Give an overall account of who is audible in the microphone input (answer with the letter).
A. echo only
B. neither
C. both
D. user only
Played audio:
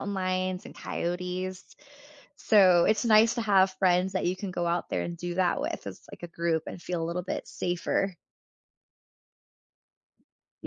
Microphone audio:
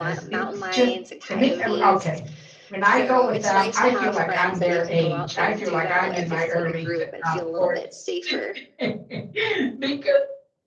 C